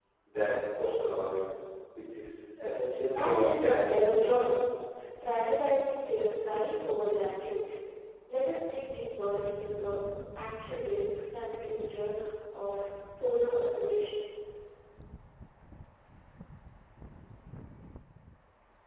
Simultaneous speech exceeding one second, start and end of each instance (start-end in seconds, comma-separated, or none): 3.1-4.3